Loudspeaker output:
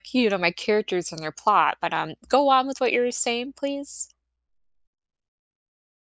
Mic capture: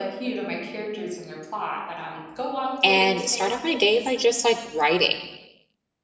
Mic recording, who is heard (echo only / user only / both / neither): both